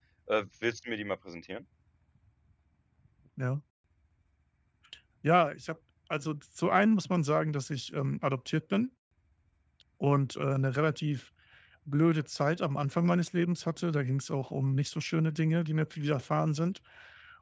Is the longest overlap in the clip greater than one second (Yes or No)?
No